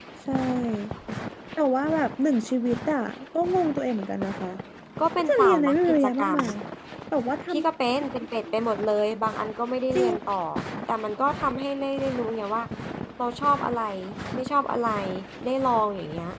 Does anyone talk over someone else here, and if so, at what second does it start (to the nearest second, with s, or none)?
5 s